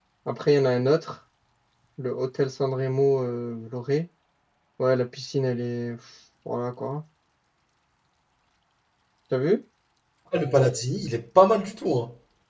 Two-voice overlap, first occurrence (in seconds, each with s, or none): none